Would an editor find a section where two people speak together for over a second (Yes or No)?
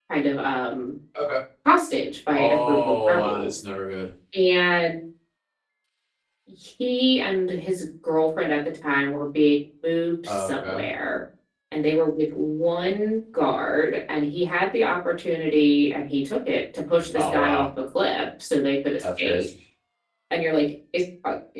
Yes